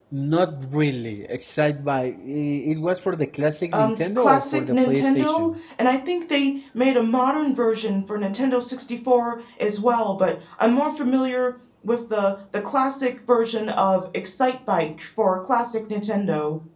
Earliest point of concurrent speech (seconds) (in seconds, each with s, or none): 3.7 s